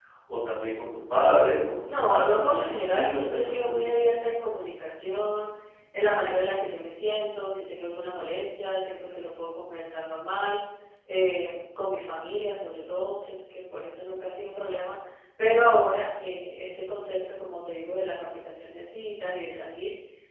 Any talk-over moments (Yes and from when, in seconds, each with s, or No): Yes, from 1.9 s